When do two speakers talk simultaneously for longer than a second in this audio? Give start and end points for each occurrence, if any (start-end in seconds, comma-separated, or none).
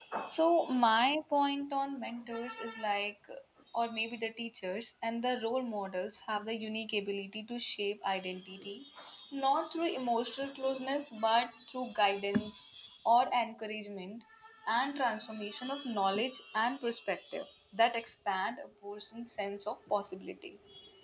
none